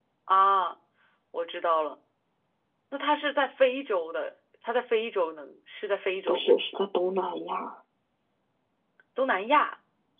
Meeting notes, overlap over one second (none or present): none